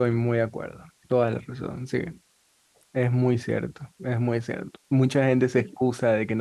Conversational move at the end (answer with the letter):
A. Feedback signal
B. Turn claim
A